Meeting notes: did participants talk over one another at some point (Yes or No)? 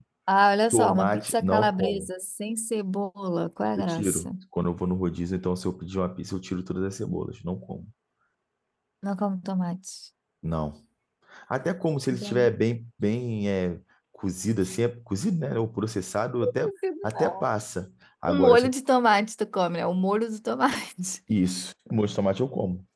Yes